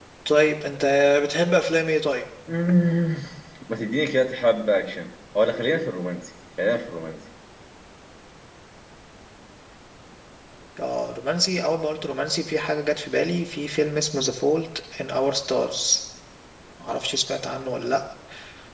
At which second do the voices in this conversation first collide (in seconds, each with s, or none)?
none